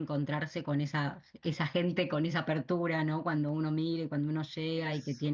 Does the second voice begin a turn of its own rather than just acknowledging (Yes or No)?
No